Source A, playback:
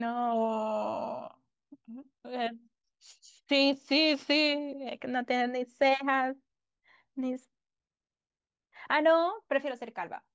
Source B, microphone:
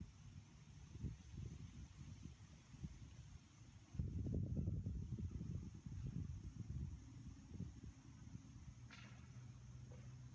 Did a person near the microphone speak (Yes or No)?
No